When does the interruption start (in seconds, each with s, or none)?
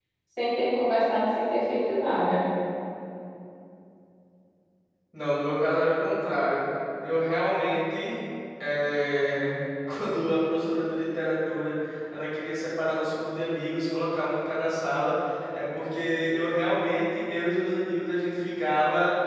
none